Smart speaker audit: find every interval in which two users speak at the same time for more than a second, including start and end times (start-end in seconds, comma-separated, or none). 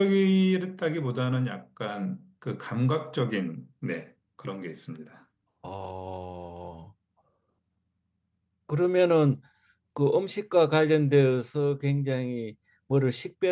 none